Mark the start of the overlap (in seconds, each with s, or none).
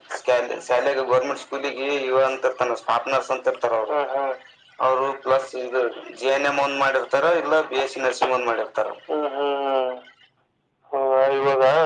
none